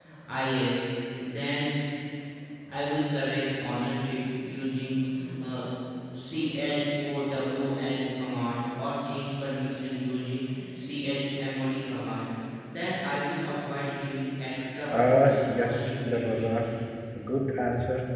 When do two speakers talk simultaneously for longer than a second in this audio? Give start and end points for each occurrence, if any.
15.0-16.6

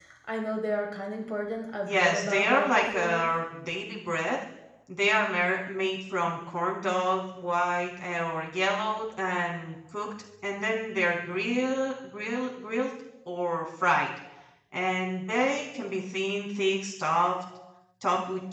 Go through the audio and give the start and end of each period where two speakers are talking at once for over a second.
1.9-3.3

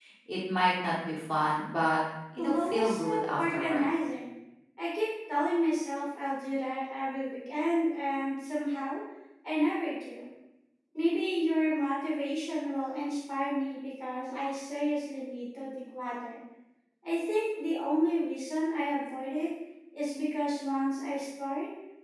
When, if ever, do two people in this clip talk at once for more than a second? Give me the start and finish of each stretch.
2.4-3.9

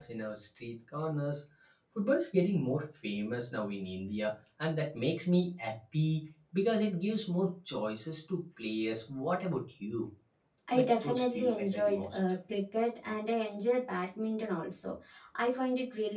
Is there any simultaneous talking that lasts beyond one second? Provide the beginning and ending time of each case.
10.7-12.2

